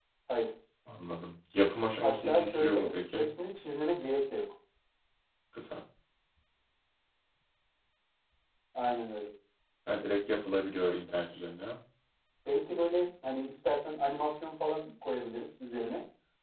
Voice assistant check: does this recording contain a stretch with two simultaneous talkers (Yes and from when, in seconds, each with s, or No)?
Yes, from 2.0 s